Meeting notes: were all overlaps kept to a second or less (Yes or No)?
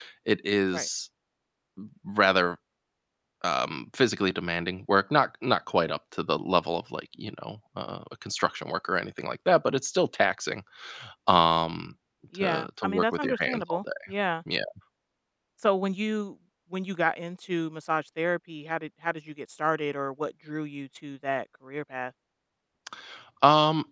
No